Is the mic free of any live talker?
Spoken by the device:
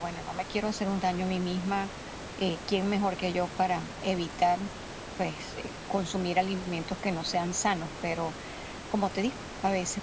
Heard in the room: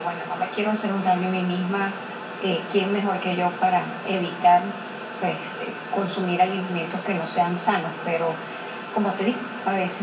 Yes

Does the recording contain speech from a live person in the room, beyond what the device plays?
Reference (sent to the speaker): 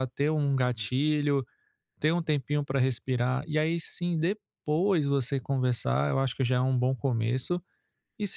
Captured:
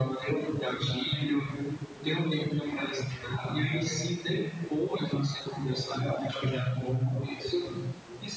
No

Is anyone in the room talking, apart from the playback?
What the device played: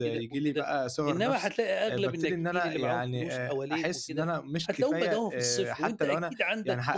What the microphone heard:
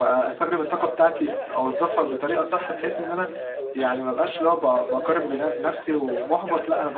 Yes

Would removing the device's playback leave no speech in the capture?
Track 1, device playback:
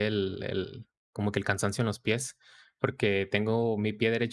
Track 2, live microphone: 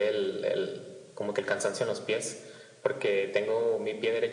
Yes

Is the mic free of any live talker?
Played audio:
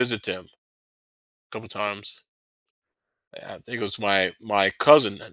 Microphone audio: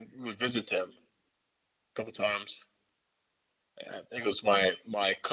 Yes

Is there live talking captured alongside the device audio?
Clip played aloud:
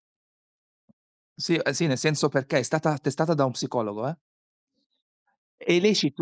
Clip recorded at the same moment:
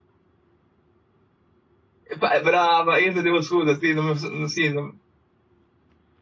Yes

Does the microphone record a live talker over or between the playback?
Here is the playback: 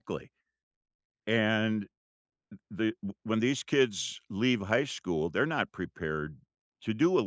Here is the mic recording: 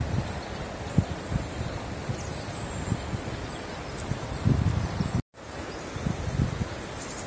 No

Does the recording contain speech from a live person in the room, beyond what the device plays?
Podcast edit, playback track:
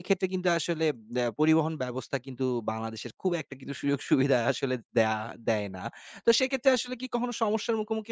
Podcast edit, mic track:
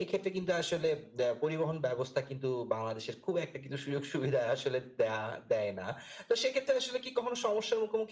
No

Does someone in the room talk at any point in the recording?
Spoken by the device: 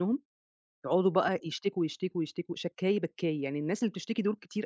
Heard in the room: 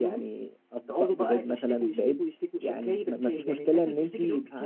Yes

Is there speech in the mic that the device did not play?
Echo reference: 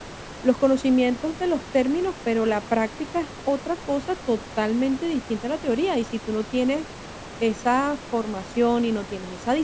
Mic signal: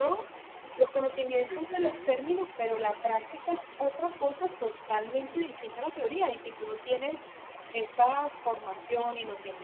Yes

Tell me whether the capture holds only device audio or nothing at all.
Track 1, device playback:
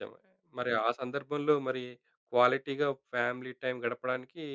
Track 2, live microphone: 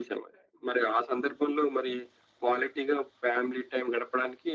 Yes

